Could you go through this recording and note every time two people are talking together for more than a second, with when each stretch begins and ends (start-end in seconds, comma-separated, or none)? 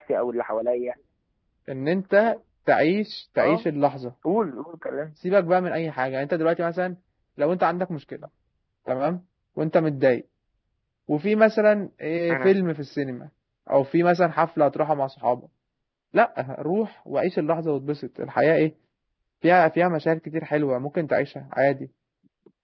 none